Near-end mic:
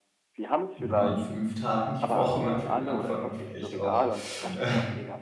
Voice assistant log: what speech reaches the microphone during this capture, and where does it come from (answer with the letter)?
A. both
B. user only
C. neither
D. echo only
A